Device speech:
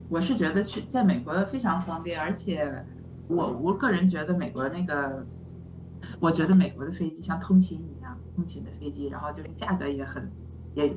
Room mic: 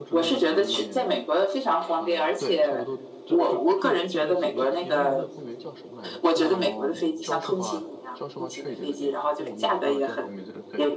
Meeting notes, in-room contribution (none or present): present